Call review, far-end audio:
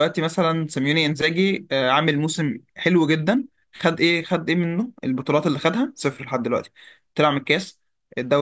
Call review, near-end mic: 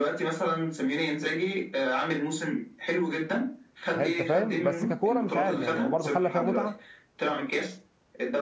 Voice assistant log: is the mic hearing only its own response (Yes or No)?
No